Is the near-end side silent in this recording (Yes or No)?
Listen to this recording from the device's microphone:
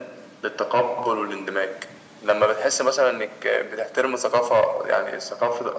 Yes